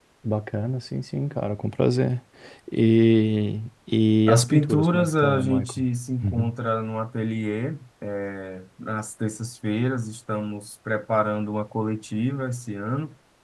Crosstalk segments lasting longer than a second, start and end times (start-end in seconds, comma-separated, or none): 4.3-5.8